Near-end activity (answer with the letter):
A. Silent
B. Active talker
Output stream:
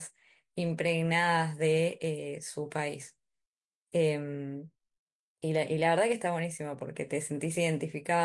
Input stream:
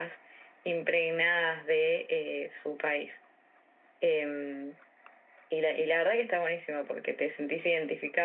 A